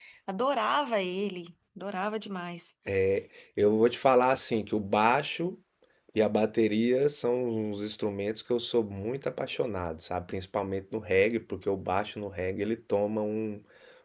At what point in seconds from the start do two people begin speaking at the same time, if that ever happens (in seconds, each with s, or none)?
none